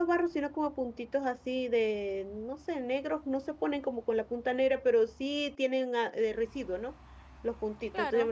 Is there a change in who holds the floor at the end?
No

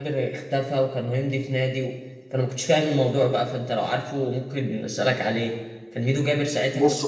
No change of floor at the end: Yes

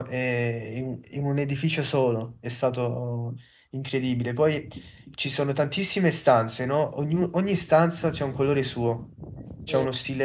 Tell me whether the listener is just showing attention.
Yes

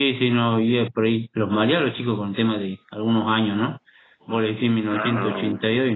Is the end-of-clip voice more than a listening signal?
No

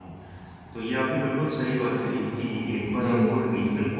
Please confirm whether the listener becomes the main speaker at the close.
No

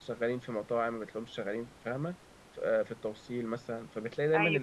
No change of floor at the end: Yes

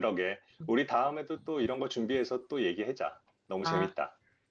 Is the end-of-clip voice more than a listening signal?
Yes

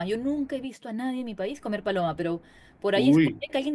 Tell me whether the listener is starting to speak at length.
No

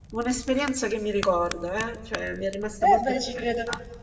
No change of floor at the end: No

